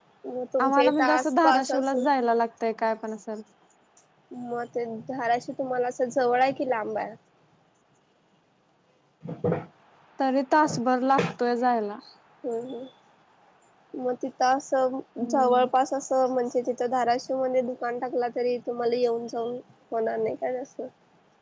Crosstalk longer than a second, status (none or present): present